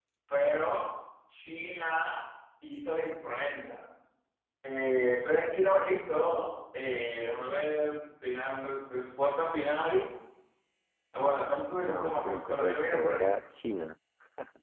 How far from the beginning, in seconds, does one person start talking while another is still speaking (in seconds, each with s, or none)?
11.8 s